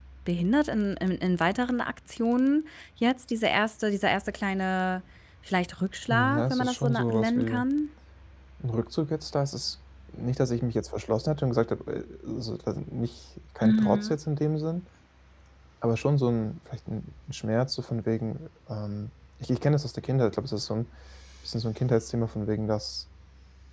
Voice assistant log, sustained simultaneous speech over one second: present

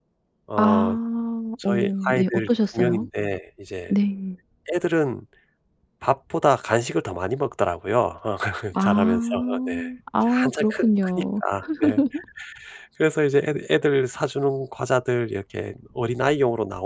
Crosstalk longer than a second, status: present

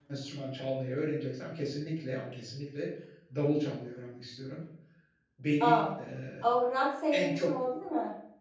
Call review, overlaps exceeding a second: none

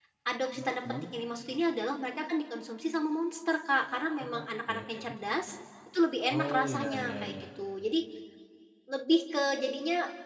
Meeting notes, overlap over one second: present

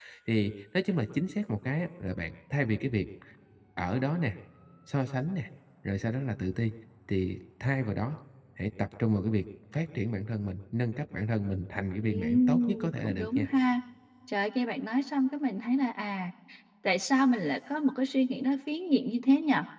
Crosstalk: present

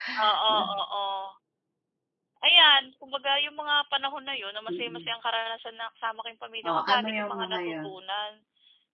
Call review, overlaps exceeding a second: present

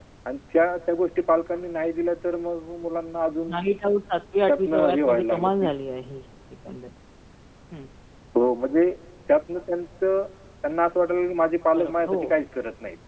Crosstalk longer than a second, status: present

